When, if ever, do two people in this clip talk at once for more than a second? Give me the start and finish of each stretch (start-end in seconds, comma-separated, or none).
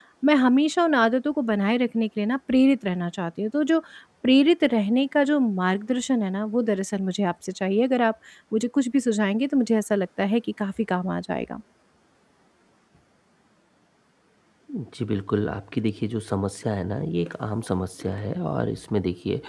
none